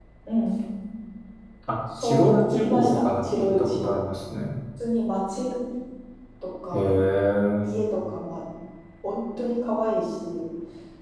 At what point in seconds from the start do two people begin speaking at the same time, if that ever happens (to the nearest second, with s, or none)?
2 s